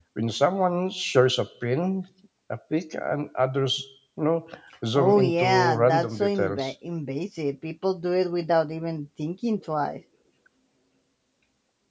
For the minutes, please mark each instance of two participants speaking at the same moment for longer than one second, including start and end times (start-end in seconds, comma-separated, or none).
5.0-6.7